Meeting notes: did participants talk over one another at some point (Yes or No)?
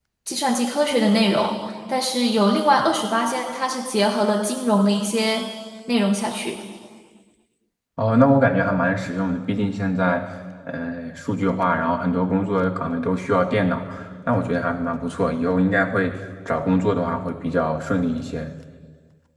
No